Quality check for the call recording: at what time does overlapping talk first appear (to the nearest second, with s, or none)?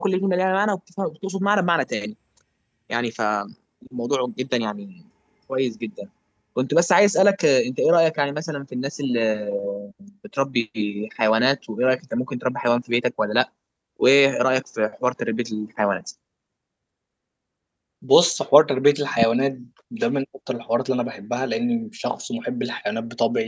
none